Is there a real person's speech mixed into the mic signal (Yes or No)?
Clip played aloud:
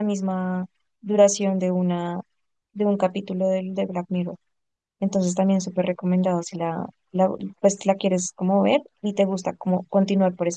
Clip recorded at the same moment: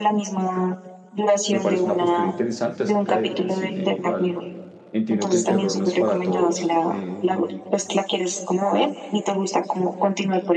Yes